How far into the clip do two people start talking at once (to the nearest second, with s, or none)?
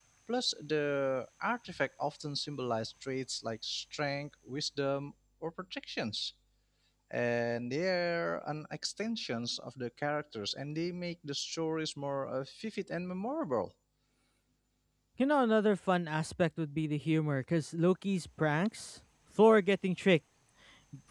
none